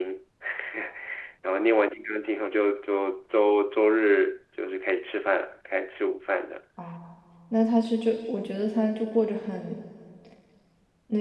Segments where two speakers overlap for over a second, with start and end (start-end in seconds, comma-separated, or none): none